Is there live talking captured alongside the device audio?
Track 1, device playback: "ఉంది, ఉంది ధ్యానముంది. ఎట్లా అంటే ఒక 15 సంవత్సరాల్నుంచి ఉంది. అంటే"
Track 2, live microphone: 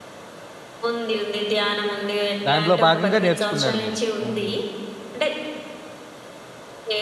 Yes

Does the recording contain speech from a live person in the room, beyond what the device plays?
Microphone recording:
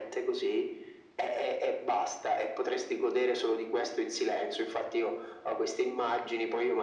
No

